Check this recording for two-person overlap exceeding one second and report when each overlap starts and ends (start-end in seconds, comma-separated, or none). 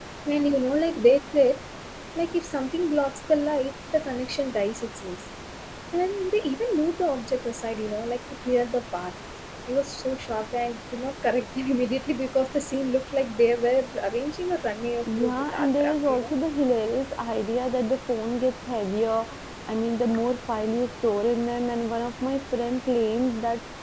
15.0-16.3